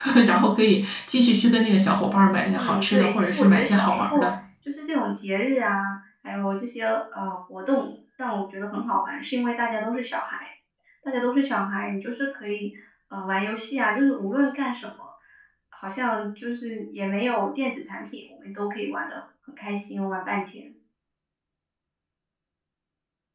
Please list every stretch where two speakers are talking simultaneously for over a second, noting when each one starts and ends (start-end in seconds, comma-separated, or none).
2.5-4.3